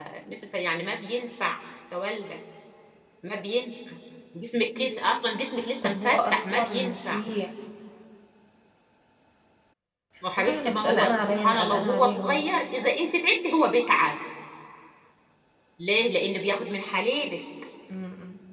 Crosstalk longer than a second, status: present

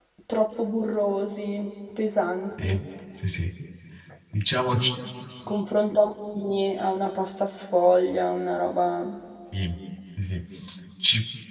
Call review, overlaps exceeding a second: none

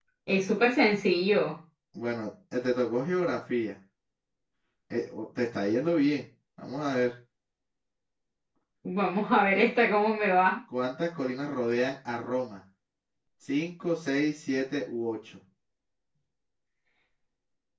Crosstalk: none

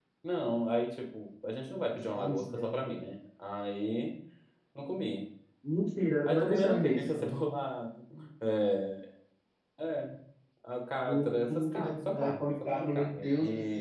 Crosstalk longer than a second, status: present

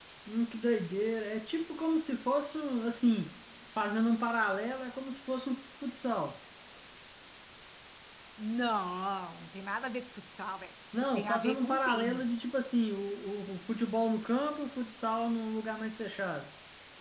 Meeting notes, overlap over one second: present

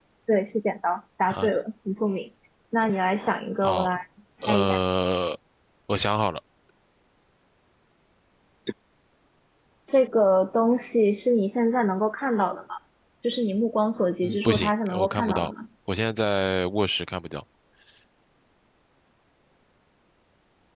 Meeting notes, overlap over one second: present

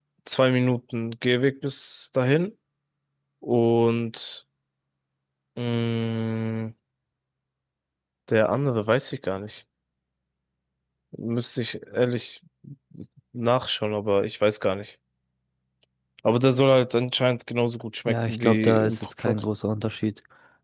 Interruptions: present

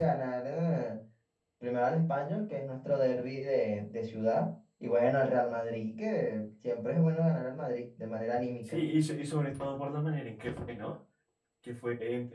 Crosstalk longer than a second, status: none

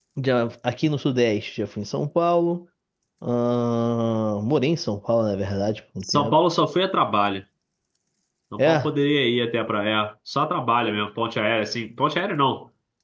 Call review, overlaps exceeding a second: none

